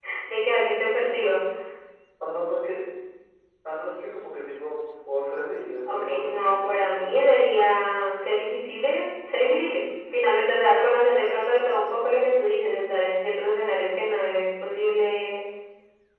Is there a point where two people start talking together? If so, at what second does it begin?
5.9 s

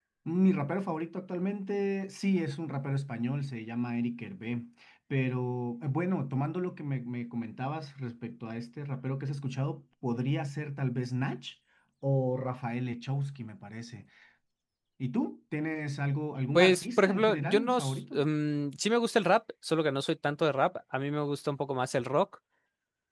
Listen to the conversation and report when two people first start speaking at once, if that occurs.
16.6 s

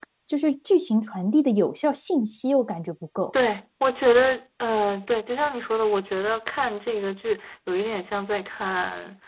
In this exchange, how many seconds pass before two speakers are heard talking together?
none

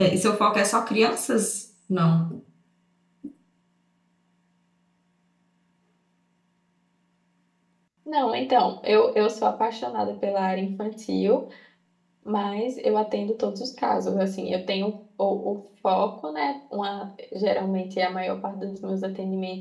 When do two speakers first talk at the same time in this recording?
none

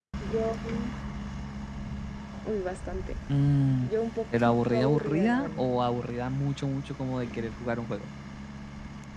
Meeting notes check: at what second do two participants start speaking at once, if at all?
4.4 s

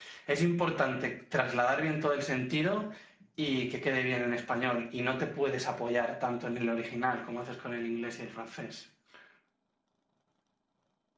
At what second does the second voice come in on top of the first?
none

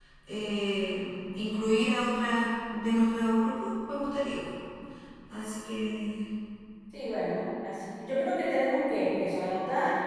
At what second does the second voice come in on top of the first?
none

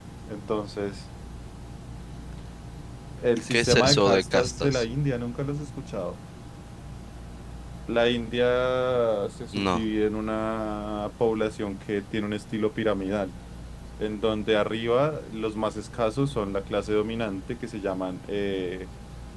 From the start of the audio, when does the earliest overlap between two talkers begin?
3.5 s

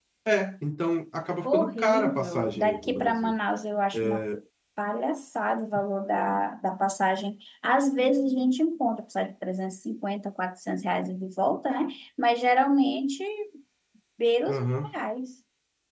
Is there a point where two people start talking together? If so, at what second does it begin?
1.4 s

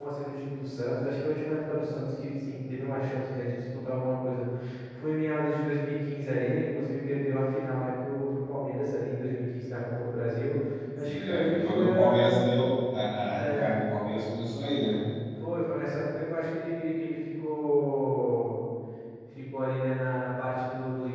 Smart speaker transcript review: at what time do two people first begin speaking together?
11.1 s

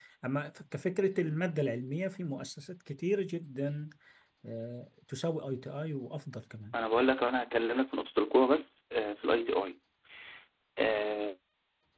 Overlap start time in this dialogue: none

